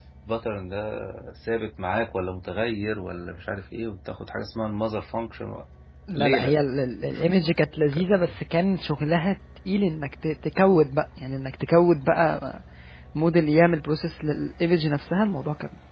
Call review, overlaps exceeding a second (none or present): none